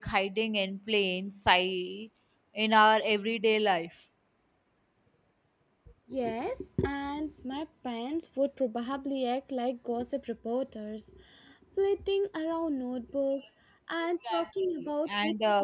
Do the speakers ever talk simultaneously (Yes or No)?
Yes